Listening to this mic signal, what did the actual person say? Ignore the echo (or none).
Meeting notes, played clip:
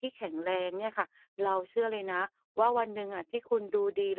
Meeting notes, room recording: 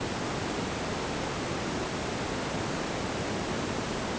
none